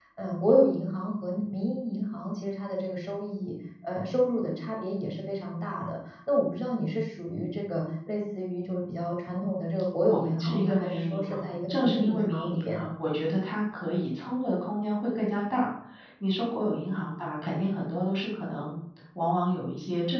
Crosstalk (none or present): present